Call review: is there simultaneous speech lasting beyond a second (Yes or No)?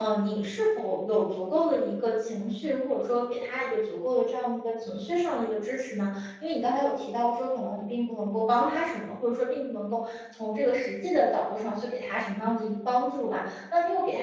No